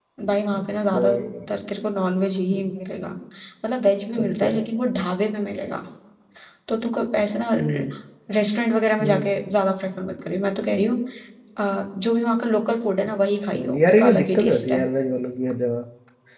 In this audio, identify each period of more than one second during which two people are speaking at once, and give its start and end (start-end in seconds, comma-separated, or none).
13.4-14.8